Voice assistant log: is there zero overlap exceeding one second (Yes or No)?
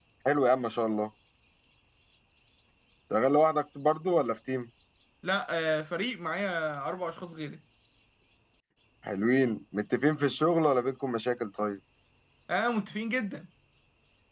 Yes